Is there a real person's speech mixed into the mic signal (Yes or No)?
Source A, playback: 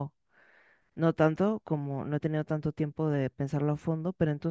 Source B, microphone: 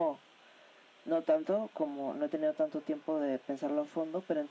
No